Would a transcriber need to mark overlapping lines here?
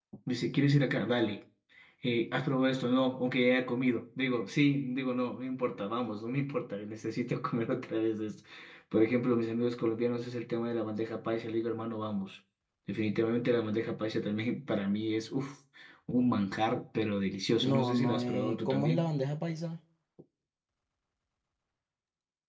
Yes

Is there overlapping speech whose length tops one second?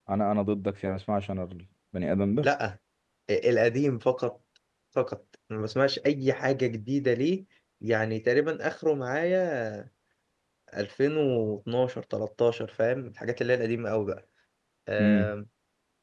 No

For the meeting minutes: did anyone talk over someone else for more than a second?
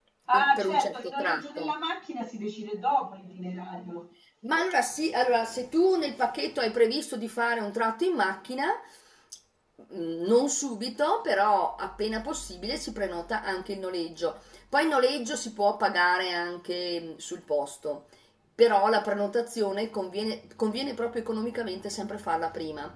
Yes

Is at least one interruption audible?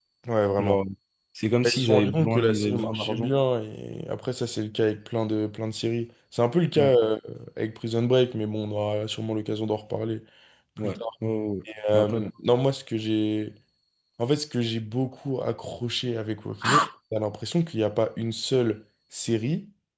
Yes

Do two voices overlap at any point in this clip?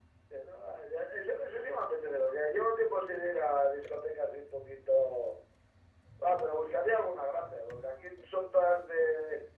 No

